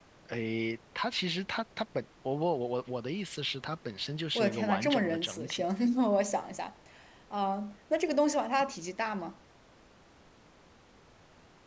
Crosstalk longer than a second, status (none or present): present